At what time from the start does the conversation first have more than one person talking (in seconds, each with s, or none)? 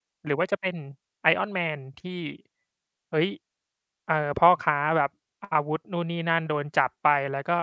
none